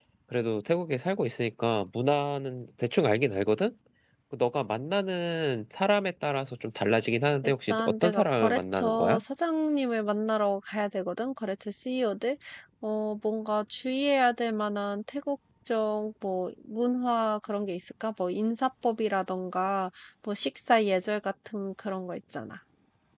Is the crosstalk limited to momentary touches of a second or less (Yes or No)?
No